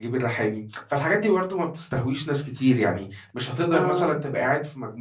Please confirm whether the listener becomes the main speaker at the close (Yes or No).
No